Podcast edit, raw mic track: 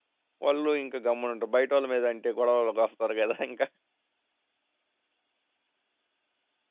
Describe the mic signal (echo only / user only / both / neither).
user only